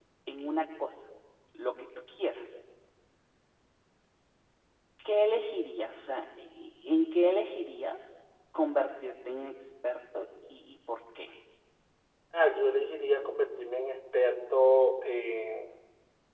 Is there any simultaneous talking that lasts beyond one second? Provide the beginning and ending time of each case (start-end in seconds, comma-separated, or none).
none